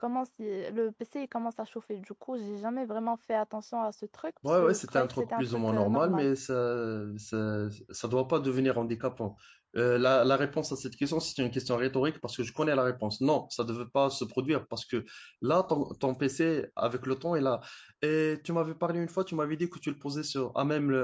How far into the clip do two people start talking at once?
4.4 s

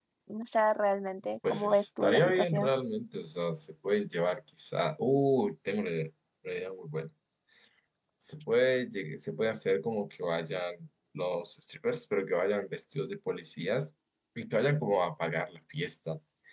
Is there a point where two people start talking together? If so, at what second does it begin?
1.4 s

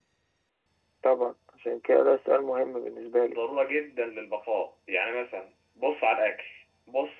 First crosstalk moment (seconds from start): none

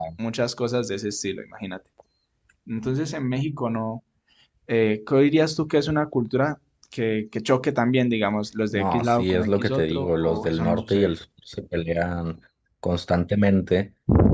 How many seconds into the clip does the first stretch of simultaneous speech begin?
8.7 s

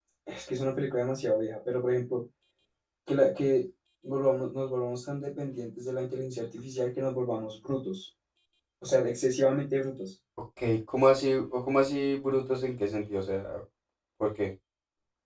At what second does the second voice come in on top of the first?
none

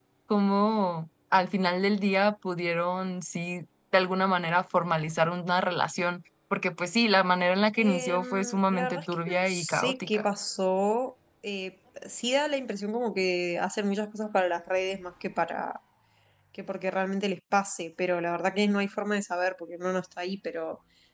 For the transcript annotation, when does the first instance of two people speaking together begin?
7.8 s

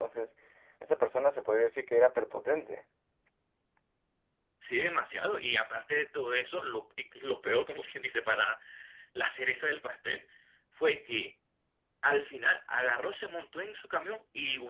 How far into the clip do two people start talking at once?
none

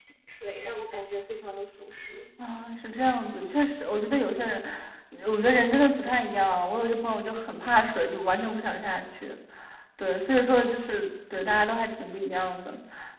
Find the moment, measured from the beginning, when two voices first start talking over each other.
none

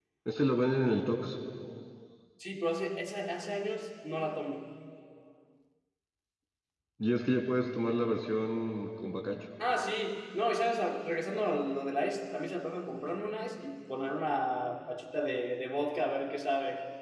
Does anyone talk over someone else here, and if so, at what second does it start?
none

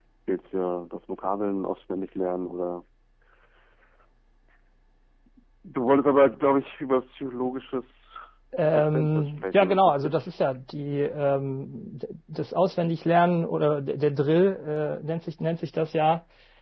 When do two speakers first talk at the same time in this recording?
8.8 s

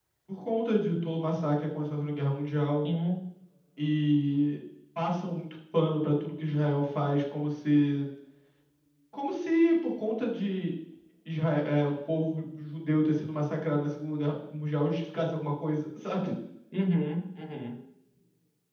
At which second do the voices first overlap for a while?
none

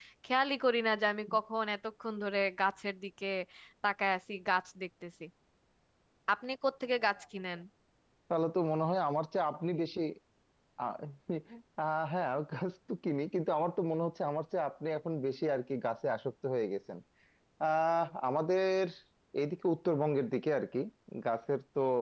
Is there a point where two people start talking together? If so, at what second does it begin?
none

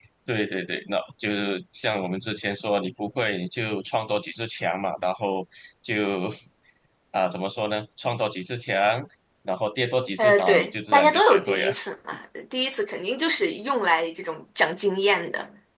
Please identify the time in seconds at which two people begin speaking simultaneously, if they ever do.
10.2 s

